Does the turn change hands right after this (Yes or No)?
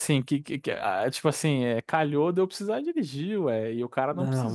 Yes